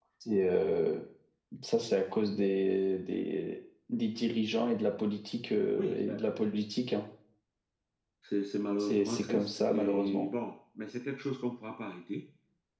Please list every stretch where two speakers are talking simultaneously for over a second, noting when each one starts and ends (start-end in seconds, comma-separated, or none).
8.8-10.3